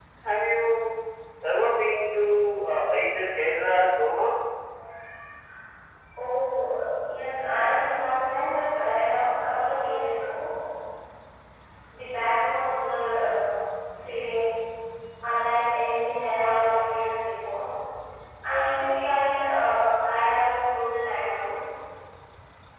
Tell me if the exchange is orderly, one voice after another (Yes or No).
Yes